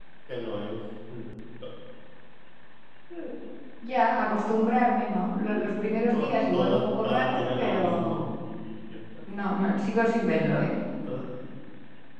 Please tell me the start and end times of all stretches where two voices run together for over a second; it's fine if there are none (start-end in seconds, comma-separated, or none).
6.1-8.2